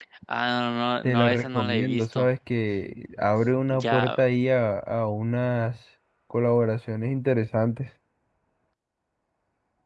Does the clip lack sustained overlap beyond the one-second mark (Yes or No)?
No